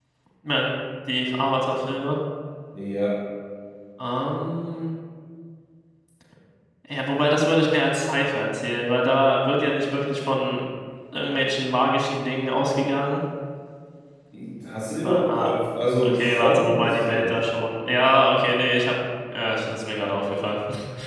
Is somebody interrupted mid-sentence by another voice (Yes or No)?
Yes